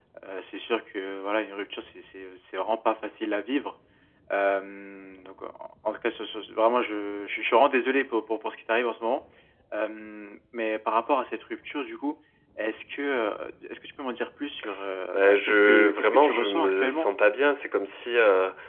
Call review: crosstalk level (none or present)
present